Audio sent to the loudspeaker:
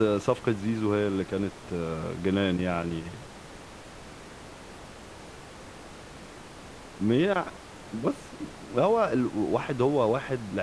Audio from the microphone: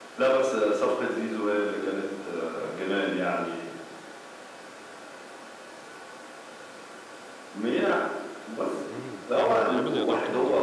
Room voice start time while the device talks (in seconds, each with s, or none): 8.8 s